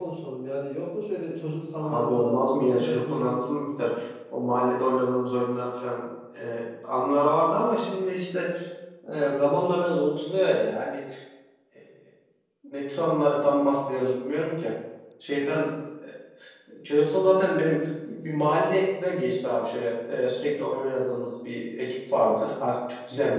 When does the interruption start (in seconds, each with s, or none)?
1.8 s